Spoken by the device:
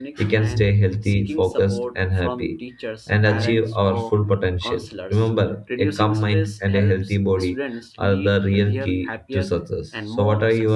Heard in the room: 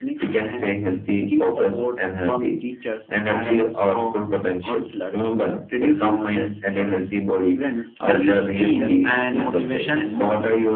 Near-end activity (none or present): present